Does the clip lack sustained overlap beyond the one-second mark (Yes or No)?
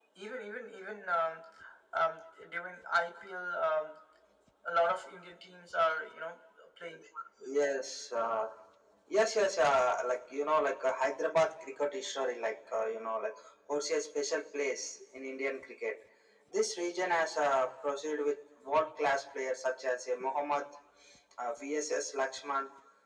Yes